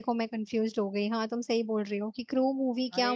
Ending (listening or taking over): taking over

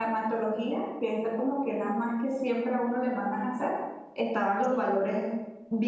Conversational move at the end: listening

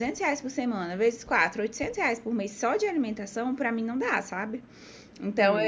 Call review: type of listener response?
listening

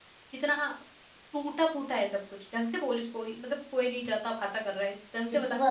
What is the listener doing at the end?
taking over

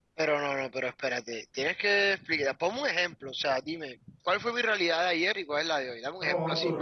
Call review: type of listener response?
taking over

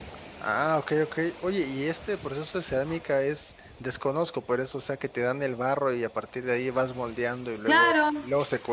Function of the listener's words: taking over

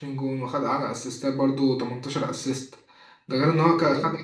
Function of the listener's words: listening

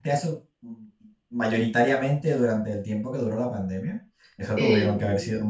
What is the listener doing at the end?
listening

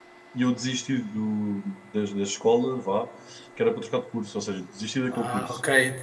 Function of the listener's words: taking over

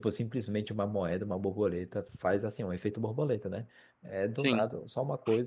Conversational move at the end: listening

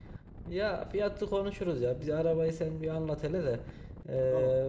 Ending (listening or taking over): listening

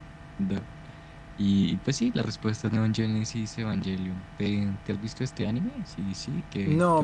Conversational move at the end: taking over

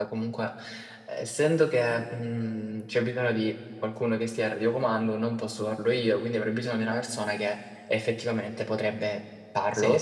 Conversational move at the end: listening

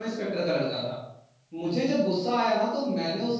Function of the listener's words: listening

